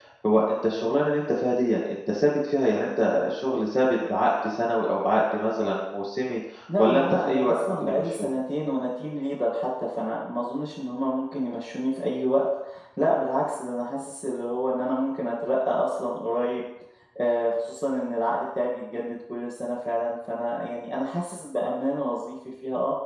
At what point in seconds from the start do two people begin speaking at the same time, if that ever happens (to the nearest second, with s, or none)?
7 s